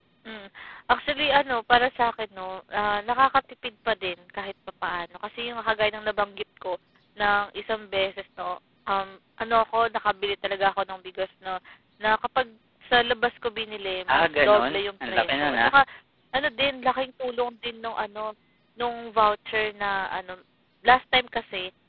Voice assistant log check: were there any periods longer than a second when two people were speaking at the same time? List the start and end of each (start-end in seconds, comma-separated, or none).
14.1-15.7